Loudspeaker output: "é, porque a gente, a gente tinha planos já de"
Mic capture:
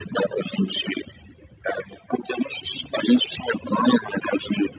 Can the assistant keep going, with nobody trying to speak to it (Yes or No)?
Yes